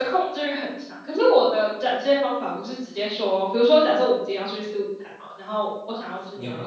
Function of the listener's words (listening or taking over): taking over